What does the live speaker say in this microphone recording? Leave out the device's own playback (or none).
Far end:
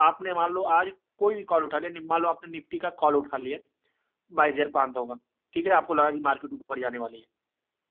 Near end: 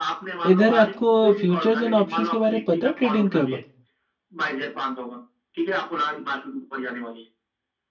इधर आपको फ्यूचर्स एंड ऑप्शंस के बारे में पता है ट्रेडिंग कब